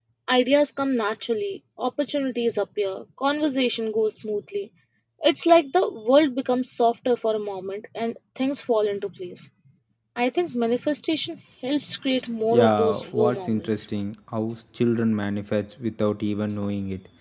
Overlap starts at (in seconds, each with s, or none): 12.5 s